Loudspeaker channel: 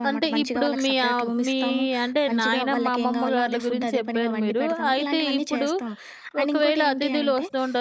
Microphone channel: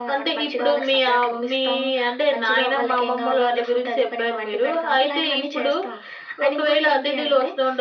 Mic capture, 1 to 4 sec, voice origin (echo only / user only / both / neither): echo only